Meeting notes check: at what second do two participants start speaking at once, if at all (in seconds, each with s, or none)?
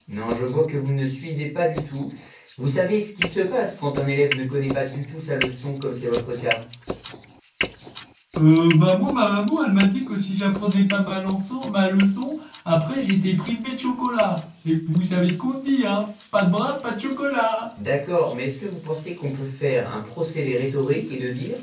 none